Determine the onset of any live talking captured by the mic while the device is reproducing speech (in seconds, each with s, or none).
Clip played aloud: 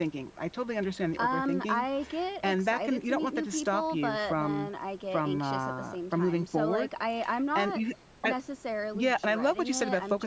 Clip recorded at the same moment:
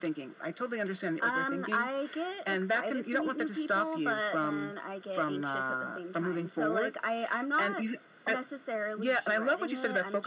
none